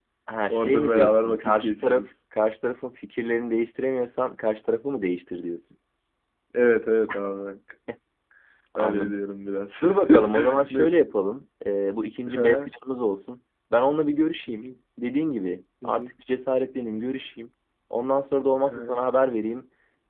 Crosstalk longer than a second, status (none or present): present